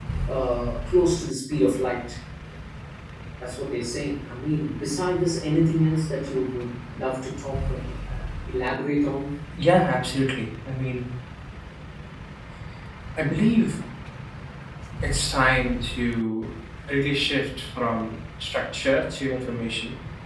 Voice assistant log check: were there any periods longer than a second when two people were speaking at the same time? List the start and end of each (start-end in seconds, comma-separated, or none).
none